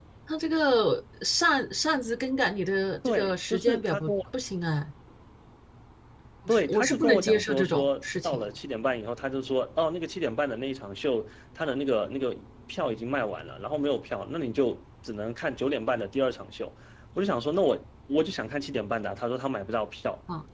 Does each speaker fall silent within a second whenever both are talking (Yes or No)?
No